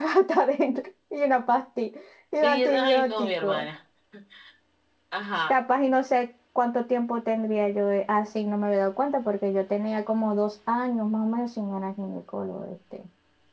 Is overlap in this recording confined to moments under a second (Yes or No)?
No